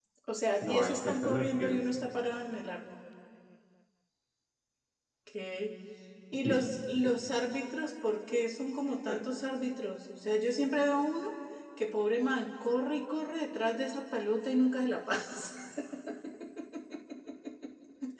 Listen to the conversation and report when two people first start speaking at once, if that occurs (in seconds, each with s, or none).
0.6 s